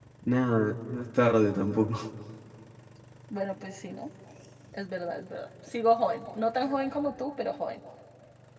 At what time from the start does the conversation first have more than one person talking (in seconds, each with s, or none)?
none